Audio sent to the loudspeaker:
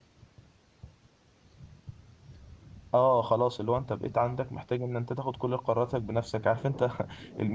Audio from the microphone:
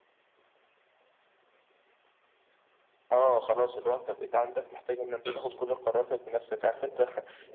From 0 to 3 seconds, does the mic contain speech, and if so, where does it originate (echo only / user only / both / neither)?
neither